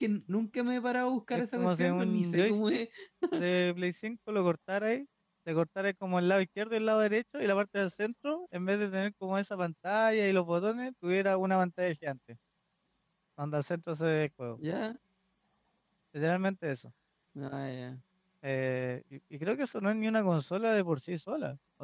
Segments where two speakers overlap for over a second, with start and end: 1.3-2.8

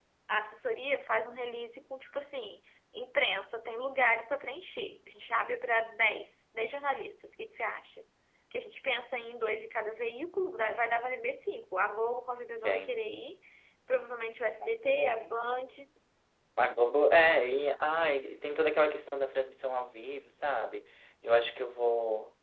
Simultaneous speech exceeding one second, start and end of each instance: none

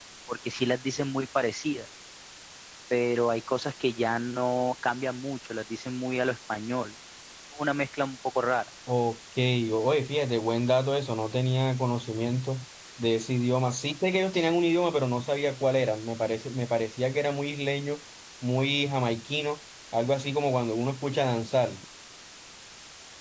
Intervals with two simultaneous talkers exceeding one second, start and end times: none

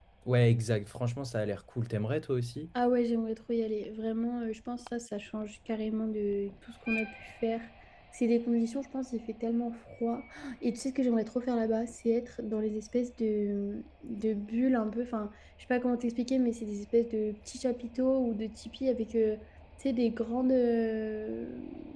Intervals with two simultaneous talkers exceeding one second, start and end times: none

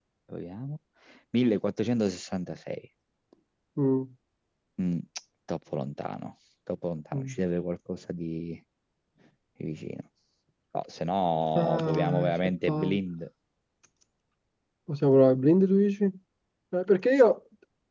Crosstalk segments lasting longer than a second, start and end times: 11.6-13.0

